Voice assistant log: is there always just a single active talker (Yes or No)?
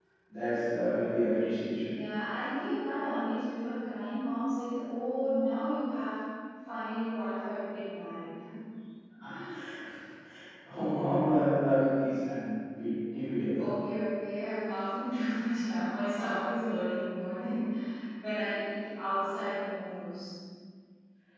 Yes